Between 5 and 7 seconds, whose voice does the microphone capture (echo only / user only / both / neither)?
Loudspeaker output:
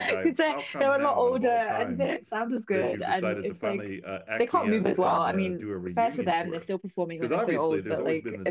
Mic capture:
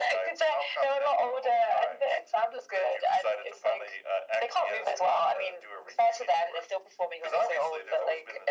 echo only